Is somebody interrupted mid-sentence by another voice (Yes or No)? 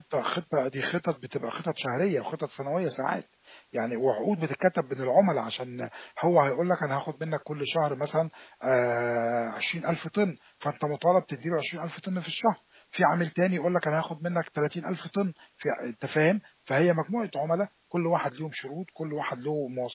No